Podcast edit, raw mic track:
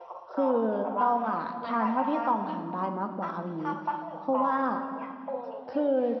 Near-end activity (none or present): present